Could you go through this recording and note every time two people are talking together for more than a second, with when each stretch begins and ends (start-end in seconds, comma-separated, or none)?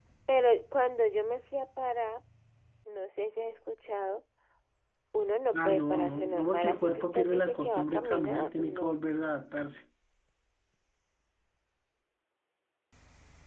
5.5-8.9